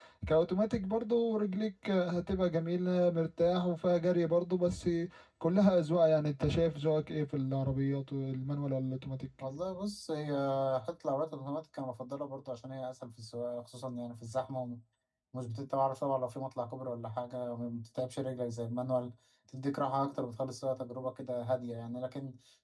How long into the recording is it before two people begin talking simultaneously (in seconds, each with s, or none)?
none